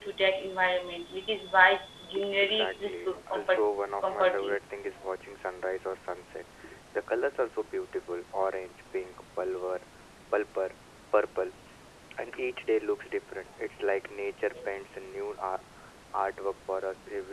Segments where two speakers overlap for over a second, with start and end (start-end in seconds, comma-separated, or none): 2.4-3.6